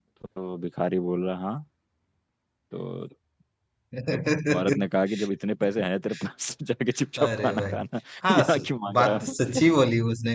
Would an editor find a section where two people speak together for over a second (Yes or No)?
Yes